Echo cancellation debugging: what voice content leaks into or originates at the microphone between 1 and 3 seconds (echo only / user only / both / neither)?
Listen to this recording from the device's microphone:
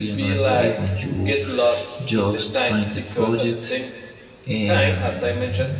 both